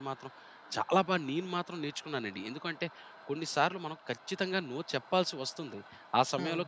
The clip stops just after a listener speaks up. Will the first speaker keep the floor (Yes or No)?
Yes